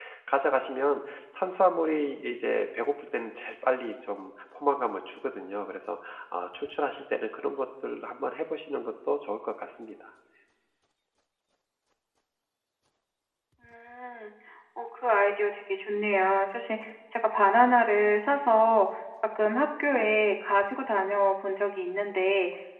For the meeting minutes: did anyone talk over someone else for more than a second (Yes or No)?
No